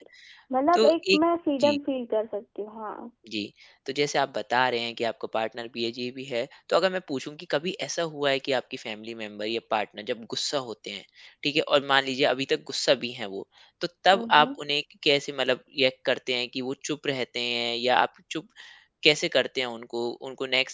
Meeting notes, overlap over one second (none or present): none